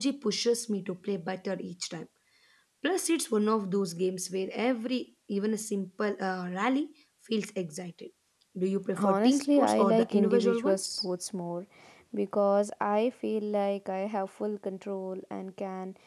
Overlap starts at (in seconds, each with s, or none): 9.0 s